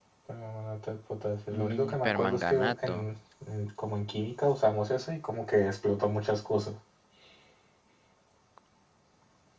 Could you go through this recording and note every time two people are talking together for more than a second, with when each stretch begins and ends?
1.6-3.1

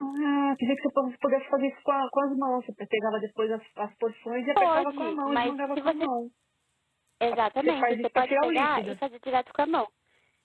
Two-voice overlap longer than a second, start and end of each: 4.6-6.1, 7.6-9.0

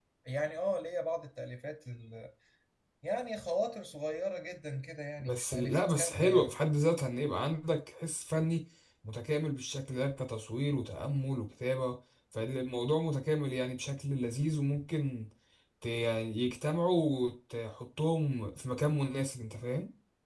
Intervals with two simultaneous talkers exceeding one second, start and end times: 5.3-6.5

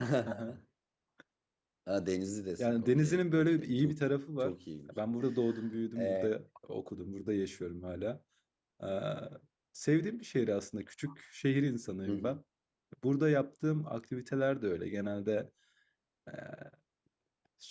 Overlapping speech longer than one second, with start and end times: 2.6-3.9

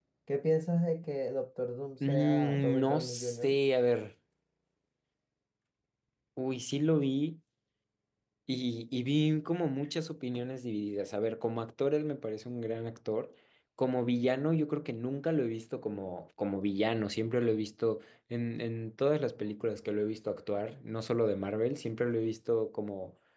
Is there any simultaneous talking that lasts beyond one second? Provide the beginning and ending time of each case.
2.1-3.6

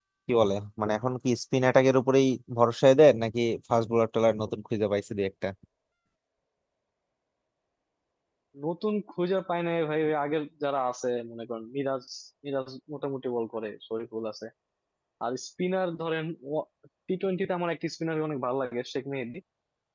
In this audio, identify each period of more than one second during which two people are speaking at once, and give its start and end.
none

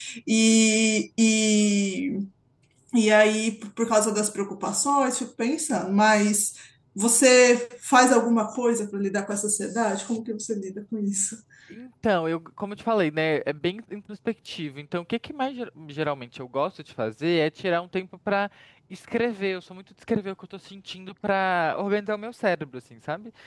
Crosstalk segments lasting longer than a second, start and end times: none

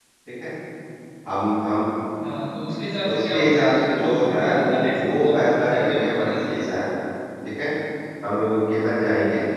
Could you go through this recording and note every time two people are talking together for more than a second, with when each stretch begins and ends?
3.1-6.3

